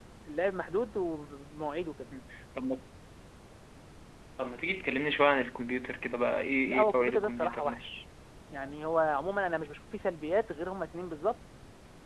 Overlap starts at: 6.7 s

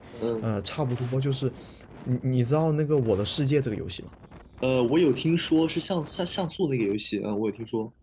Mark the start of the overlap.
none

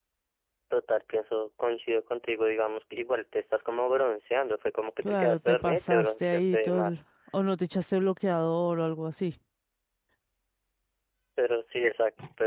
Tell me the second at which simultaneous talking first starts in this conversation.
5.0 s

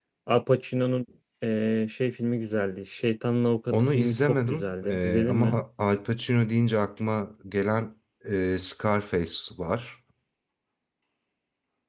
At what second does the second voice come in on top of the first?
3.7 s

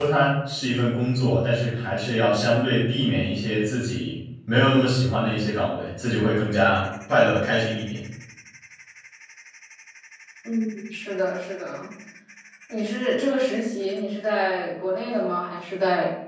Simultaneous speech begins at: none

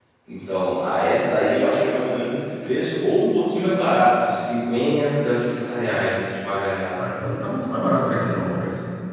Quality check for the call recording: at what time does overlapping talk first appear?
none

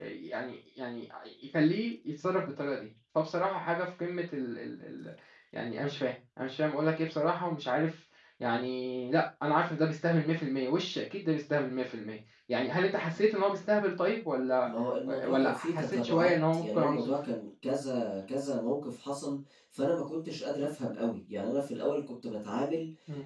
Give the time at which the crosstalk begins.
15.2 s

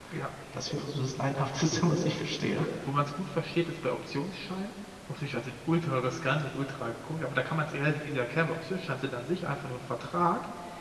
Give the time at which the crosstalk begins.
none

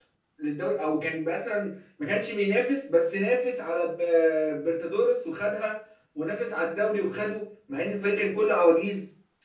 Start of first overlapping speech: none

